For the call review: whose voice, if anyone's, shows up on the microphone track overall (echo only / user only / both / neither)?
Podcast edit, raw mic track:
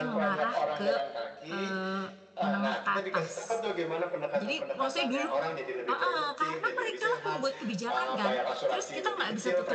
both